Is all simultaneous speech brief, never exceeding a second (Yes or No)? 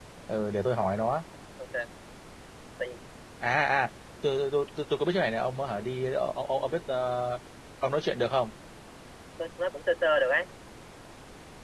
Yes